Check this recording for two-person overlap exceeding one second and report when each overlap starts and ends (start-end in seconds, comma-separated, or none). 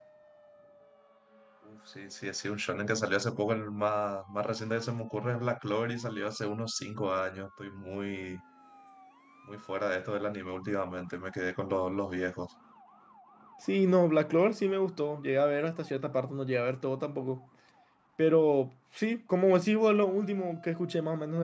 none